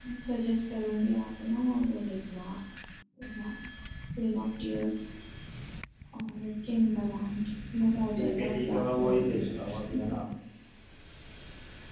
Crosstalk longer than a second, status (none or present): present